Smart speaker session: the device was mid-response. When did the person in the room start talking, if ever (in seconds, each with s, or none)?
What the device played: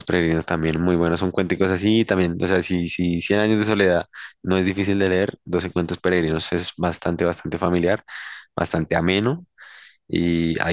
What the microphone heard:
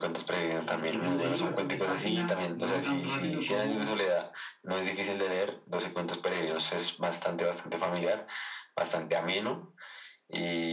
0.6 s